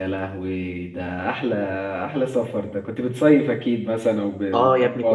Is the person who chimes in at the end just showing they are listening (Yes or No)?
No